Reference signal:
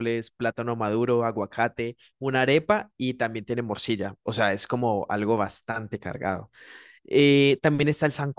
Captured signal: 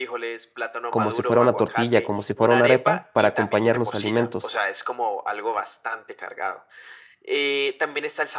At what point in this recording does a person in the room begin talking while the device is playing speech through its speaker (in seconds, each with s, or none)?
0.9 s